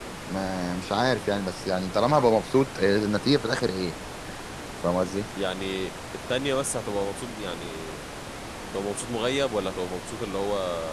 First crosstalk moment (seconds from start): none

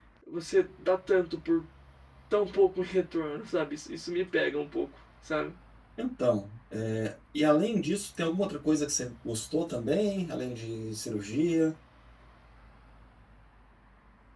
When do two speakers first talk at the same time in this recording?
none

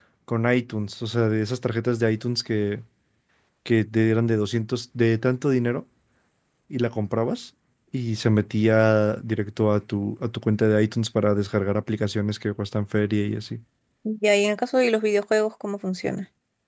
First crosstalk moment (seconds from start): none

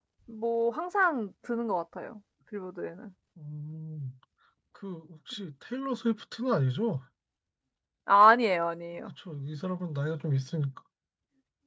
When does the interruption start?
none

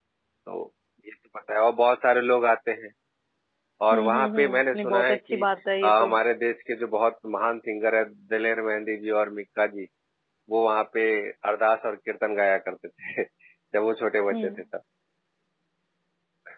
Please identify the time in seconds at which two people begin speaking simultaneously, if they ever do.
3.9 s

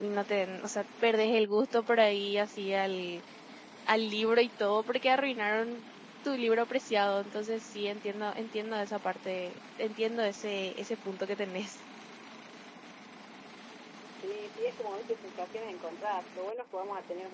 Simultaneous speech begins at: none

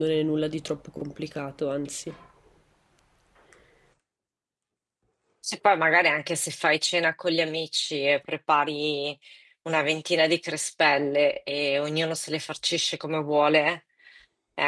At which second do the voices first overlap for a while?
none

